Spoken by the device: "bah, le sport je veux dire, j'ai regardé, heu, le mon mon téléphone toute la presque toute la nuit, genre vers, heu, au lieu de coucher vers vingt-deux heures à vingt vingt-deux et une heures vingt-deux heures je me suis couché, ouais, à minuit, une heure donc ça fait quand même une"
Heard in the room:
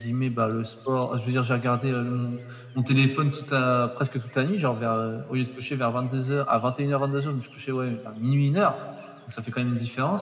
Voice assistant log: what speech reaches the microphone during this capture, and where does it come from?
echo only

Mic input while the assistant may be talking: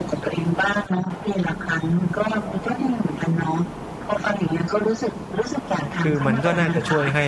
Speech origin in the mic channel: both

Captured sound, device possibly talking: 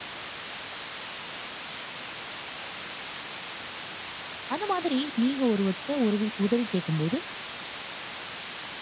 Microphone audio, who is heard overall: user only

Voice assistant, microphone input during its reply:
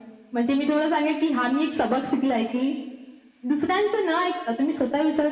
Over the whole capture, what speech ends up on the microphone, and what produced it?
echo only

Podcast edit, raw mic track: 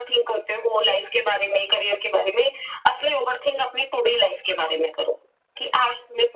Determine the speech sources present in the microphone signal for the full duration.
echo only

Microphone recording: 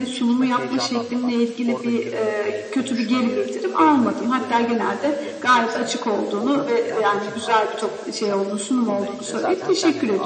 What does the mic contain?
both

